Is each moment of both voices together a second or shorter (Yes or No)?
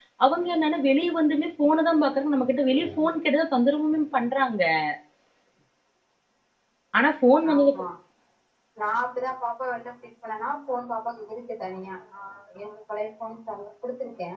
Yes